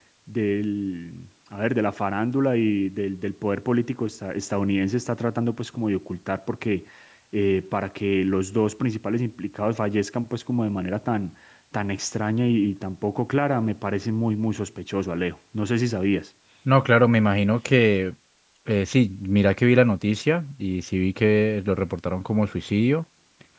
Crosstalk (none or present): none